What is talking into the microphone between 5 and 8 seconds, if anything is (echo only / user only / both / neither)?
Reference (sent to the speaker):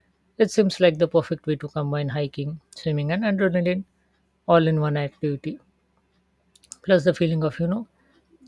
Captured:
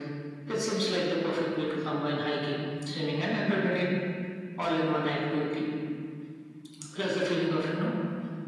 echo only